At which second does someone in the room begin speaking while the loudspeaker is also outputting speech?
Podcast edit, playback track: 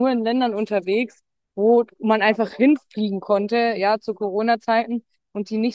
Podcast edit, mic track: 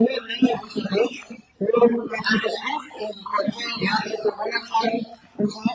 none

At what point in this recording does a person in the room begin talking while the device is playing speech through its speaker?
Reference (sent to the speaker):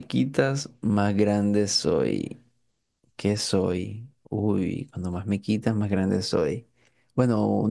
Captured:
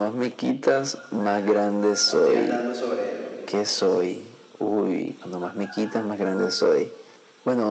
2.0 s

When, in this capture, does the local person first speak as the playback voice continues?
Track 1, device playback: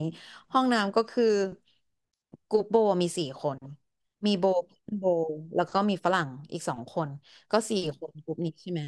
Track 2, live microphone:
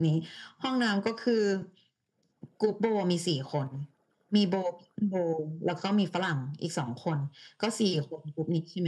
none

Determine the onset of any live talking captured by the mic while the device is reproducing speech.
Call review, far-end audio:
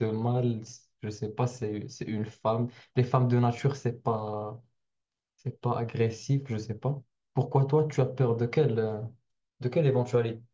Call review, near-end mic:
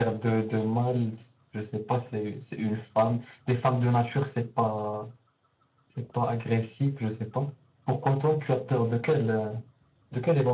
none

